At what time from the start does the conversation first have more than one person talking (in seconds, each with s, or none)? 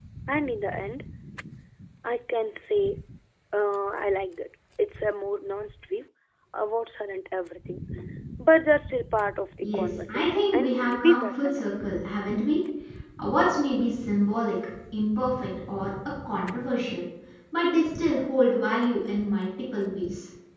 9.6 s